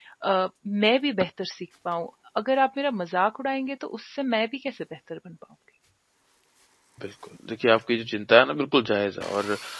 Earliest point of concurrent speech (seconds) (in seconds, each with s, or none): none